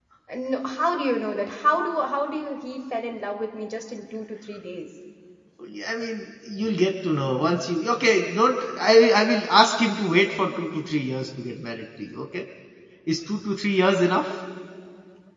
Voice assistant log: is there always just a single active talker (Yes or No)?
Yes